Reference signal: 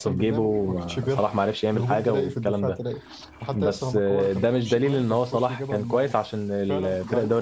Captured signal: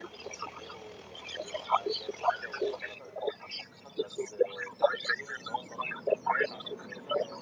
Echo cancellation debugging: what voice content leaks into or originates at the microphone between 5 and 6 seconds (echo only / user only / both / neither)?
echo only